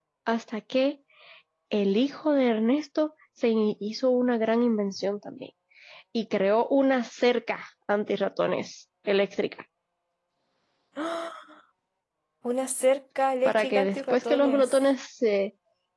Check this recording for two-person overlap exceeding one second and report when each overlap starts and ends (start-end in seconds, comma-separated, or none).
13.4-14.8